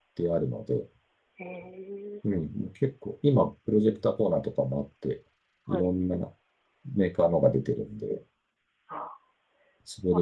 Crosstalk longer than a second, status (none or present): none